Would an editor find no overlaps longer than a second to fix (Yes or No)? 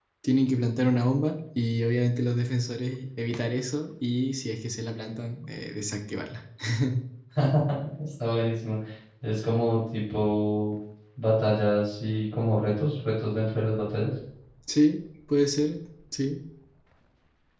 Yes